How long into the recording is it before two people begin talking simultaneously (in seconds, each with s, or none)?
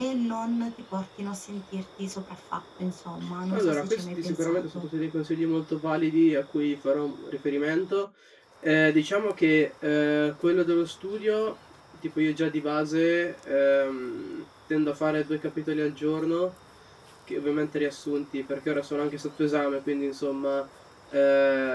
3.5 s